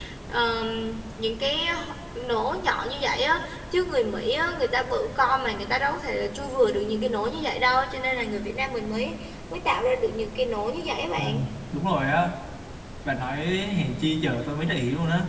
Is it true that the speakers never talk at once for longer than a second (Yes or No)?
Yes